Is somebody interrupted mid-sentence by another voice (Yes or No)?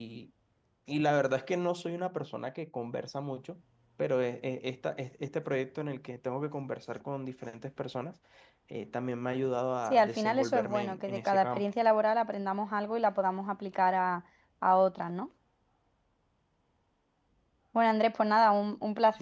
Yes